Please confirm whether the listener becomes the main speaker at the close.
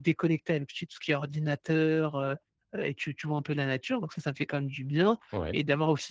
No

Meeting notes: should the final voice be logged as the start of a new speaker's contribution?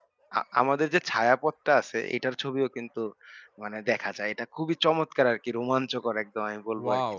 Yes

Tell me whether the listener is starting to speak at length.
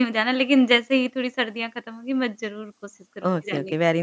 Yes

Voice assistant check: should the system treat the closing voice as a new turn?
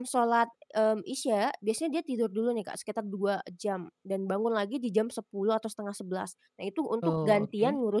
No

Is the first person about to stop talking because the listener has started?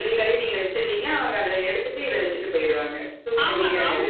Yes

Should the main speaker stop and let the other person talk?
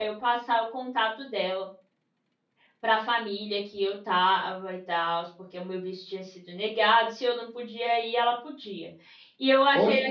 No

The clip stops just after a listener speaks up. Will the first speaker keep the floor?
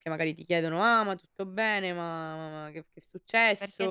No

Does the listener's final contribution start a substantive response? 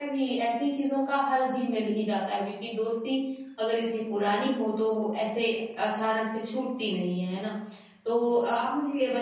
No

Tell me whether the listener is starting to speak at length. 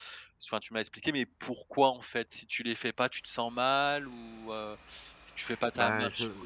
Yes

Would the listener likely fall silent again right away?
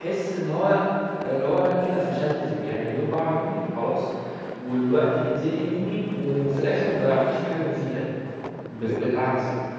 No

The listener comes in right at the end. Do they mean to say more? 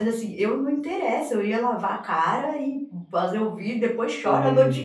No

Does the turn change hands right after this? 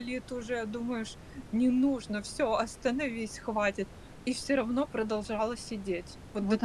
Yes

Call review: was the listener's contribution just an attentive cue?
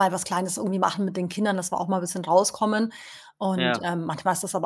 Yes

